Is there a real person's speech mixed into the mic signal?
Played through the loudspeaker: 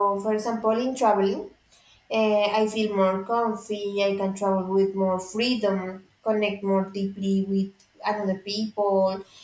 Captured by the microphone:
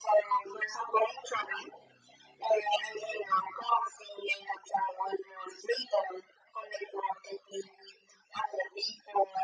No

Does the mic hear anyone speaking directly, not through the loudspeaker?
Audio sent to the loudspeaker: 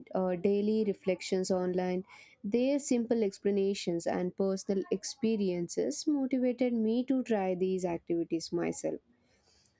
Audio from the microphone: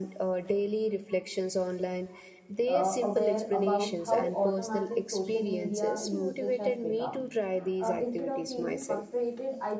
Yes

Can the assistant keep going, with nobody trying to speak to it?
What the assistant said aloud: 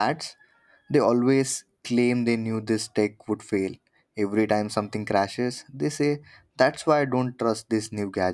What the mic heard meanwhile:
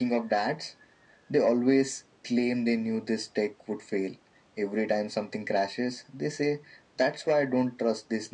Yes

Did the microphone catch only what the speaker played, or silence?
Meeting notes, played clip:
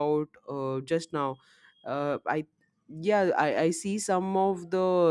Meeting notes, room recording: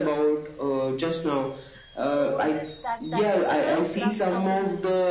No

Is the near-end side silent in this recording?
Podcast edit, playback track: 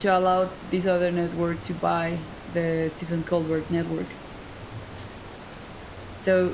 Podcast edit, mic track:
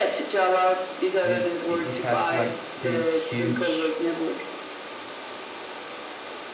No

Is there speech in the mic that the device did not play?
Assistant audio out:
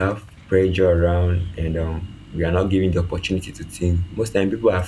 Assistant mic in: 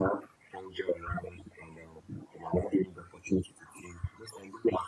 No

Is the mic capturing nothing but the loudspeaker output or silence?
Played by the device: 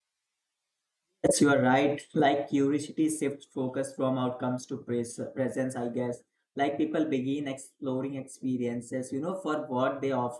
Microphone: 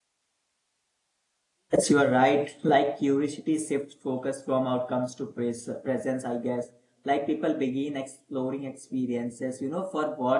Yes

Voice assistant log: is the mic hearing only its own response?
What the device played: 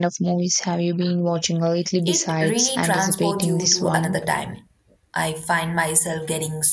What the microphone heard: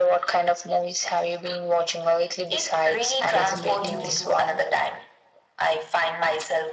No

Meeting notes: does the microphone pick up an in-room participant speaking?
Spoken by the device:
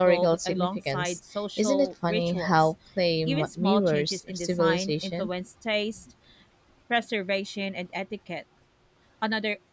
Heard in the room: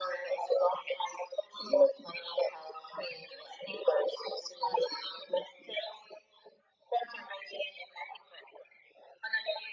No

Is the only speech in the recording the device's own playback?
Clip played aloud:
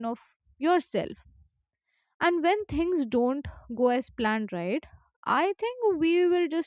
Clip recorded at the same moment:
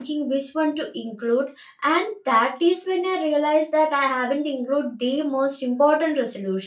No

